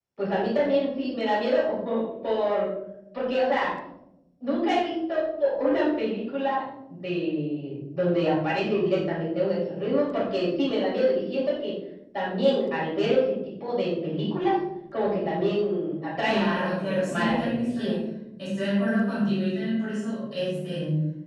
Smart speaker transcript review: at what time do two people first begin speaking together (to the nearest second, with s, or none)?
16 s